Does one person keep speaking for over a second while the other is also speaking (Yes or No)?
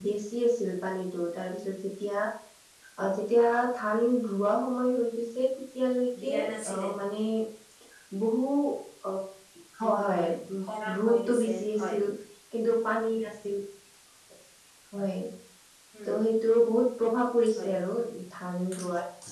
Yes